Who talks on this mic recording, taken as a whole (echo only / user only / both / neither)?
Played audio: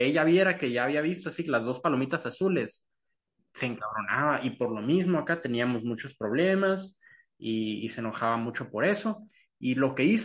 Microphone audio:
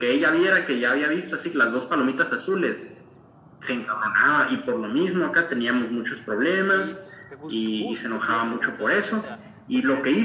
both